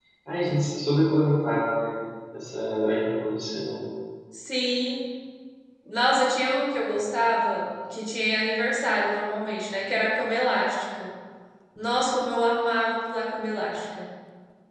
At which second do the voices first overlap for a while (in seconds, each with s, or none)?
none